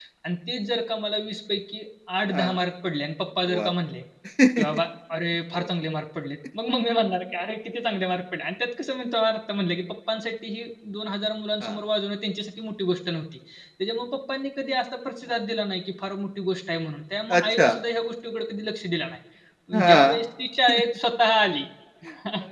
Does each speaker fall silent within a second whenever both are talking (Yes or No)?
Yes